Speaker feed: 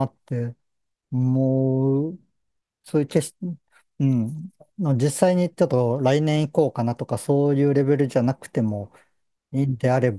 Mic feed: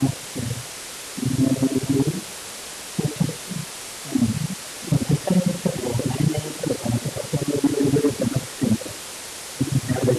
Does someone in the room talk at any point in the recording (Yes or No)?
No